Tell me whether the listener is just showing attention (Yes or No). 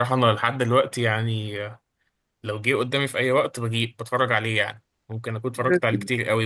Yes